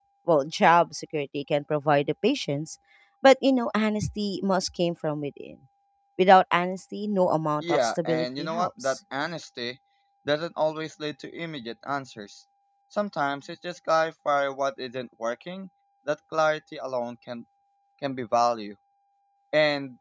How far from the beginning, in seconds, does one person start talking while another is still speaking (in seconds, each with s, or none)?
7.6 s